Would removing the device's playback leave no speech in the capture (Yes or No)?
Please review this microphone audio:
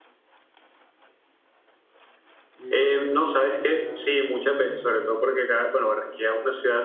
No